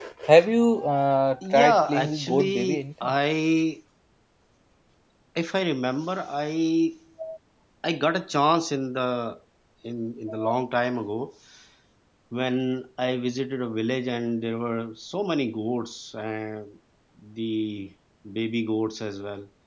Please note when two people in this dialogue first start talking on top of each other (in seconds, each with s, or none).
1.4 s